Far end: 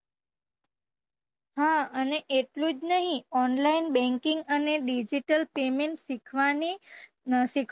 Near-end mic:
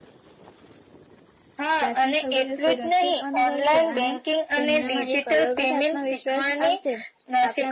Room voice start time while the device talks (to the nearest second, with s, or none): 2 s